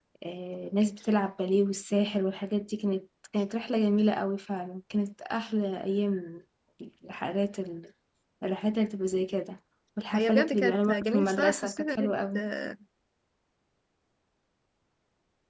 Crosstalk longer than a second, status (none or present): present